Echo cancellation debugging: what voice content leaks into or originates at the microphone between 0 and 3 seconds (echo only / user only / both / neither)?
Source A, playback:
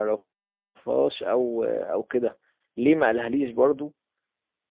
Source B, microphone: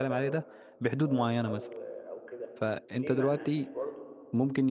both